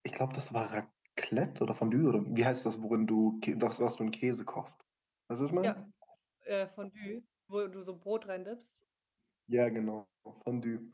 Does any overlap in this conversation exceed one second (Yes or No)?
No